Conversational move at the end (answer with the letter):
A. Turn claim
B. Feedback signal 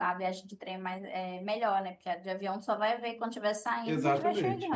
A